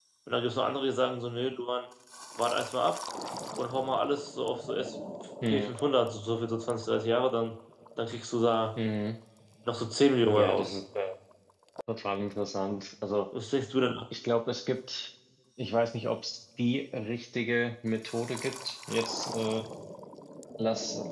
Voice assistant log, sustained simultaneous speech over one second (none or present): none